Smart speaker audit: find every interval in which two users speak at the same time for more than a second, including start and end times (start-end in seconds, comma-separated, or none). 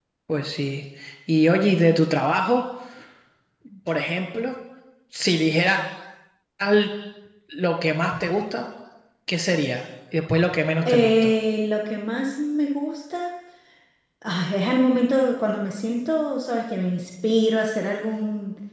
none